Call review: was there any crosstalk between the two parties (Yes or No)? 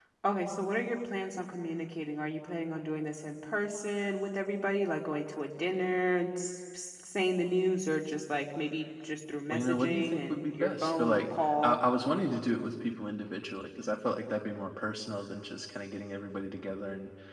Yes